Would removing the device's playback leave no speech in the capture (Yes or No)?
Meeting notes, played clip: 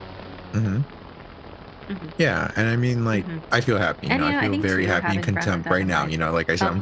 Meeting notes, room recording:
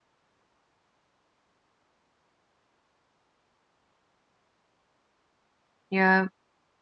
No